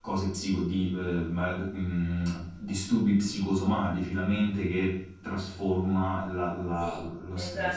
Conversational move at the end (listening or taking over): taking over